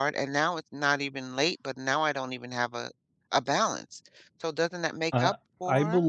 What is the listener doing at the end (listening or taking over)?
taking over